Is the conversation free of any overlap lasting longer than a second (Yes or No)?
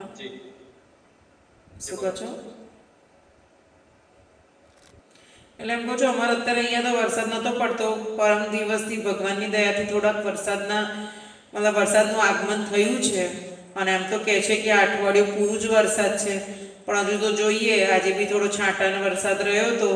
Yes